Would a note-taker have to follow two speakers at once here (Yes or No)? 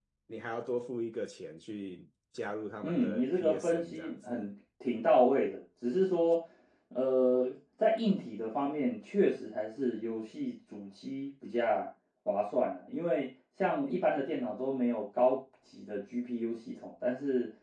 Yes